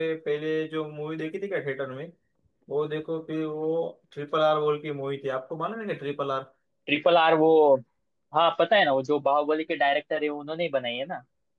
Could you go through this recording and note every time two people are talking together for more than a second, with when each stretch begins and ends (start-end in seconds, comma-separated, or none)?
none